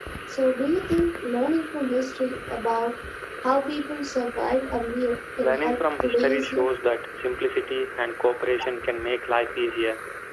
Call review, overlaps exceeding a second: present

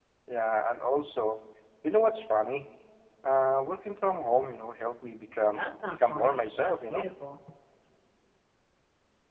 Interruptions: present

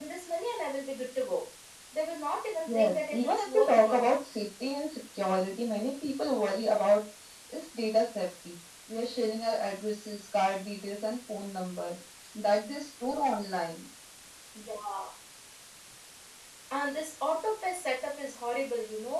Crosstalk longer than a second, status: present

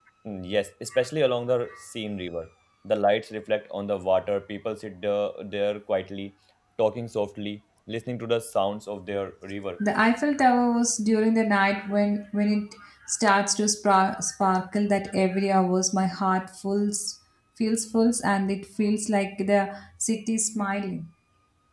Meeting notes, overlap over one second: none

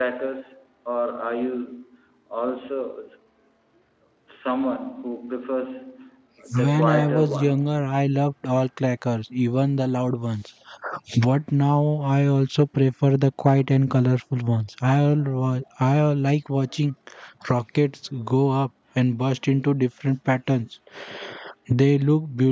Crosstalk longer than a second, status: present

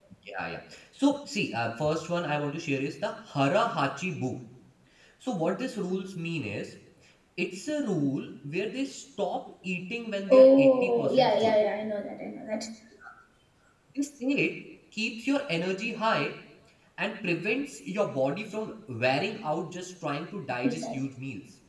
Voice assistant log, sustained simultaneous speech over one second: present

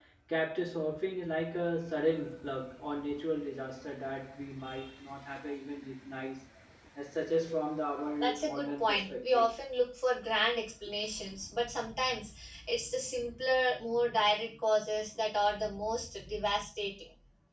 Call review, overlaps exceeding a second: present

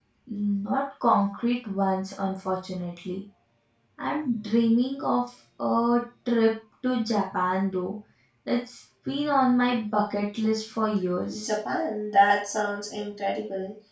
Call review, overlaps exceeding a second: none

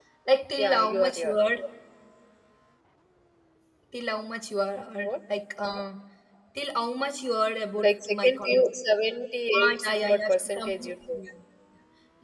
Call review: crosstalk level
present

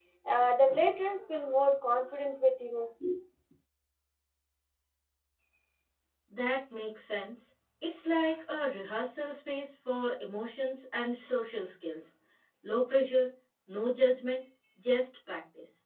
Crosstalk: none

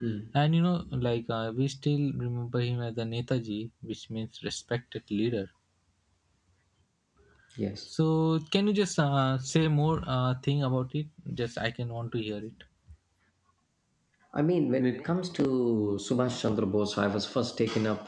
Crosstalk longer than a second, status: none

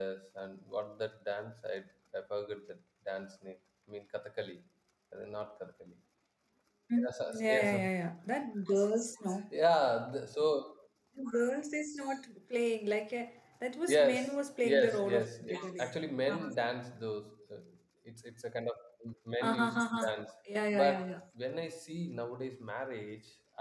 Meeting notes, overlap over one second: present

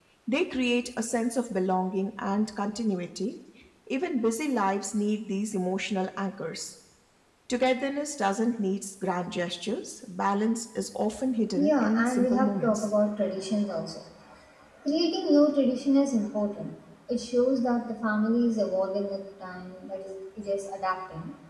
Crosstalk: present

